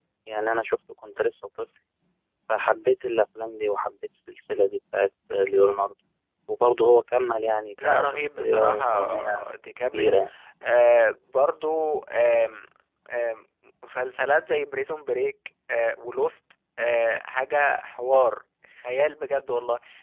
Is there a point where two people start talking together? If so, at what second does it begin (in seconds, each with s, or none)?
7.8 s